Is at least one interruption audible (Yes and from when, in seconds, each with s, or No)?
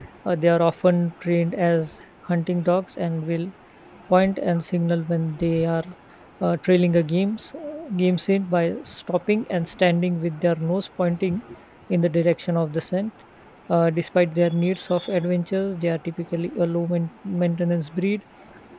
No